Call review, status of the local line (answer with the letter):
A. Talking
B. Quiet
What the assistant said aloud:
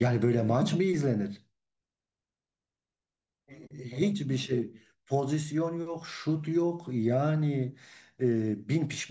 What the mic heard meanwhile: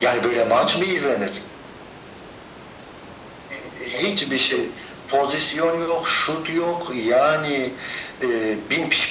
B